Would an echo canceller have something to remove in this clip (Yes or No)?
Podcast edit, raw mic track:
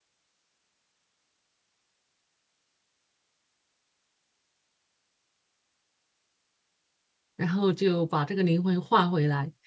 No